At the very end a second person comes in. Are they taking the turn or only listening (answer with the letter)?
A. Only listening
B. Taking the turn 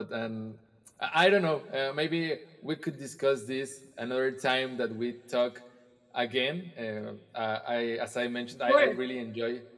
A